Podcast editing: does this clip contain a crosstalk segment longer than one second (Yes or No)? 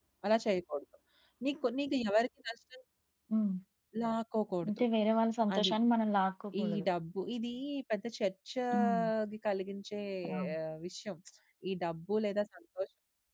No